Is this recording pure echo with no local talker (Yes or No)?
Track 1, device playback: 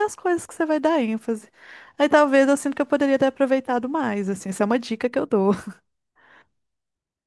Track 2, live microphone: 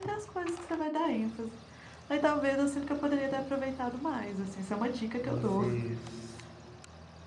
No